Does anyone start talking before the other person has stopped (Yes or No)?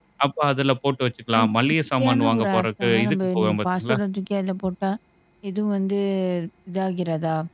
Yes